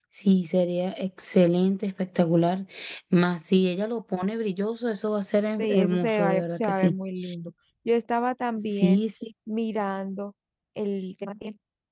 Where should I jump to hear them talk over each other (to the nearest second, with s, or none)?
6 s